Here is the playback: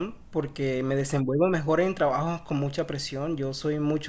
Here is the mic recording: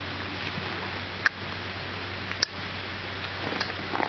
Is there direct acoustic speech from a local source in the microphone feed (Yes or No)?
No